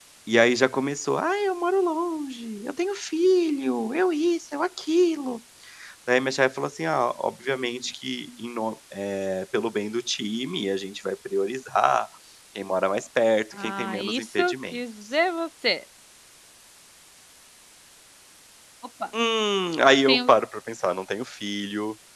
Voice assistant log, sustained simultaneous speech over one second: present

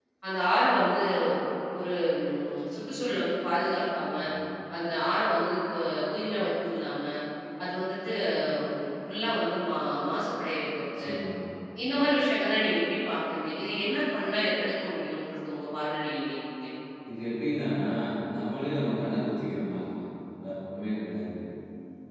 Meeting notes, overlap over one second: none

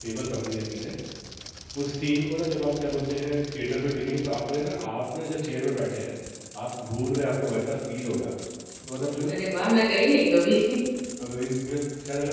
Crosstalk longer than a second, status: none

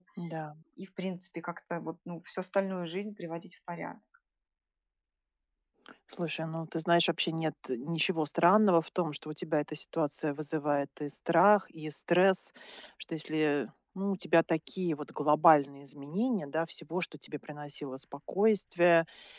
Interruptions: none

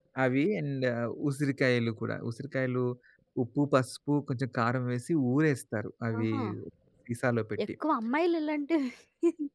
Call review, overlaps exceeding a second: none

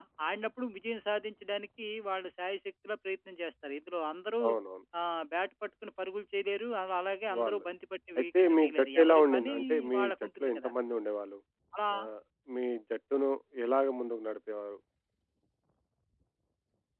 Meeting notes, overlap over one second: present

